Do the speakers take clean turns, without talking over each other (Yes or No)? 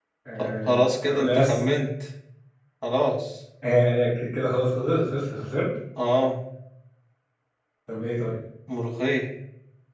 No